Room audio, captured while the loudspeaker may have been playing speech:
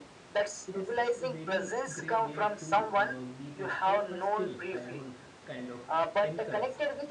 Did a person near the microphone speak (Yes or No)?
Yes